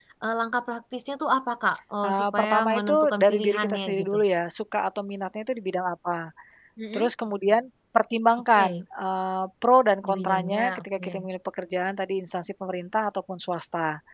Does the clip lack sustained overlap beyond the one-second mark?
No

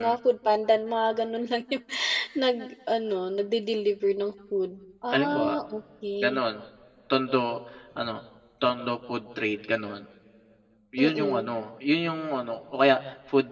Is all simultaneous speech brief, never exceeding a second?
Yes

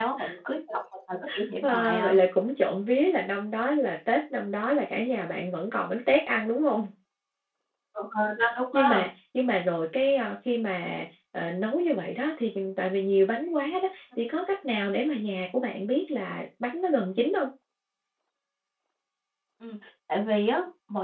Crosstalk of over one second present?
No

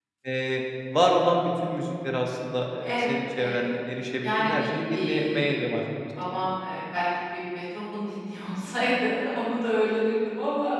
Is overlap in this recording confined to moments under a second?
No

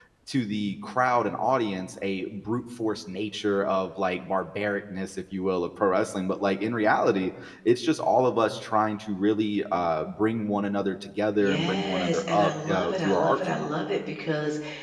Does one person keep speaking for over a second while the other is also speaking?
Yes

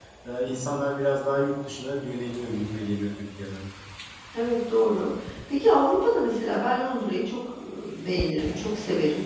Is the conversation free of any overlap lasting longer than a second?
Yes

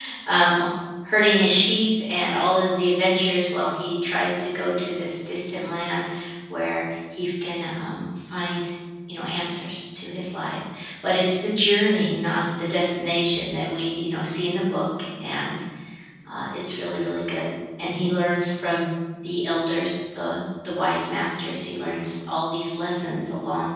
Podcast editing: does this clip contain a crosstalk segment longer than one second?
No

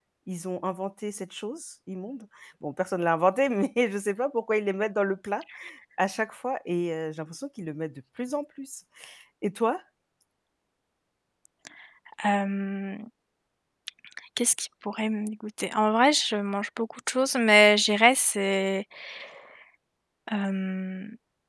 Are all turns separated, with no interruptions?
Yes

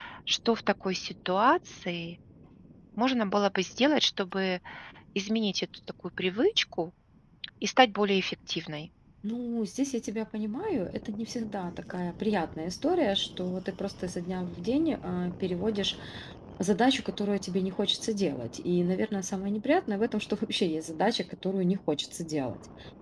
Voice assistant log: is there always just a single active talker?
Yes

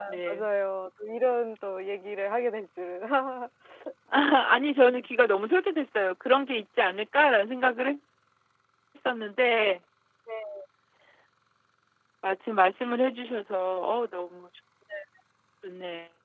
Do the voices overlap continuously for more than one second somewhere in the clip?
No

